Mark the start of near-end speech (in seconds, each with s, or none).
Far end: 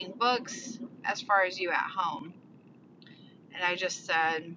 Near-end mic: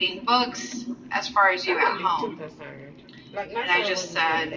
1.7 s